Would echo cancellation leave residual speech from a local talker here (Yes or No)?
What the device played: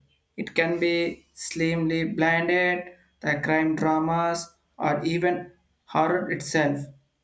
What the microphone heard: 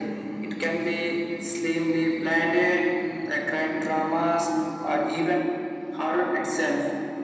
No